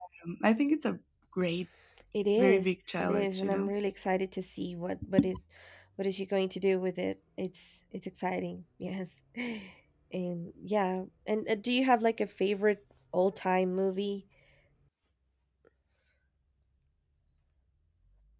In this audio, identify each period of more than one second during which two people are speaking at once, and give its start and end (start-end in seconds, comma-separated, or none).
2.4-3.7